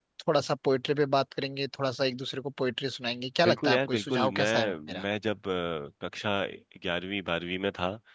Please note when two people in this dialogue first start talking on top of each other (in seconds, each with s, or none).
3.4 s